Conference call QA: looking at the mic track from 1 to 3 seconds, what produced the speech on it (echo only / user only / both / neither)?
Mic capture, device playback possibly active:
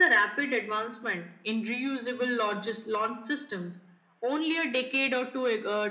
echo only